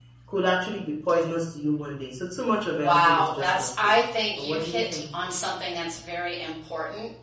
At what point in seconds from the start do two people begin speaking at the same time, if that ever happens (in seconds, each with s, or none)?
2.7 s